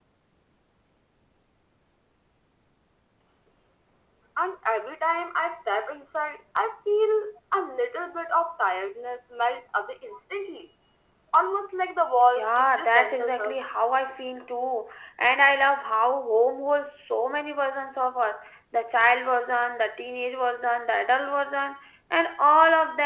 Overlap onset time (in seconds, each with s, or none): 12.4 s